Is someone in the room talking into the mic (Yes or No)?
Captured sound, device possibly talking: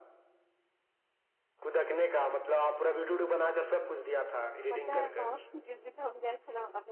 Yes